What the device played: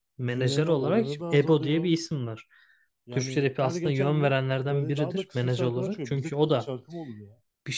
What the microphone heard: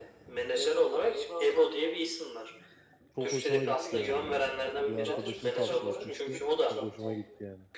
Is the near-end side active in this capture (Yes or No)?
Yes